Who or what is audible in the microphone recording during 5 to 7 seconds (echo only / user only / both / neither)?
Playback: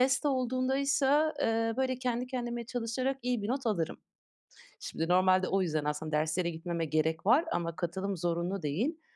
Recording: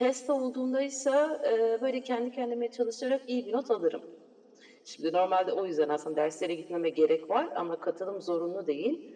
echo only